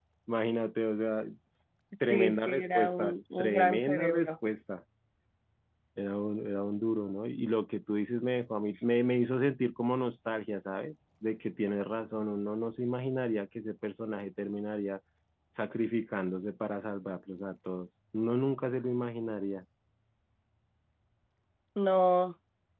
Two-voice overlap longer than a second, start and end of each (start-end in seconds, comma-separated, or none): 2.1-4.3